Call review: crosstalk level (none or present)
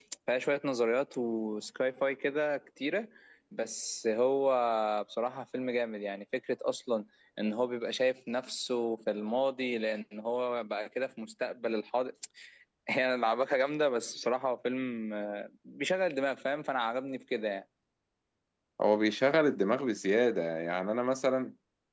none